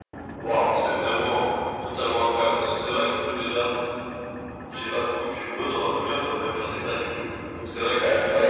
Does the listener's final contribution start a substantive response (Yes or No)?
No